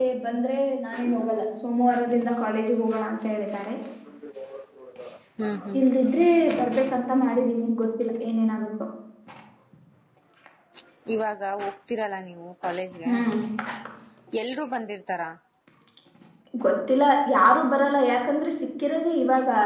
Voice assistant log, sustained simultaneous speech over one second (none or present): none